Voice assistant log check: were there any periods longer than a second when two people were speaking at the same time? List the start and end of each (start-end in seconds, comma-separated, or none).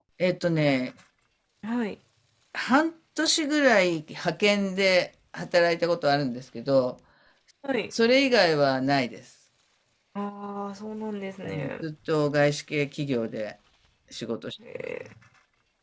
none